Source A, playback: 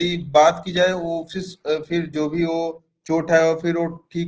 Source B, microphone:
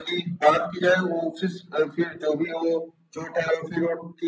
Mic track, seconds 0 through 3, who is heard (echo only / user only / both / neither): echo only